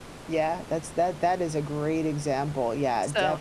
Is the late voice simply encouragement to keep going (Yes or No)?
No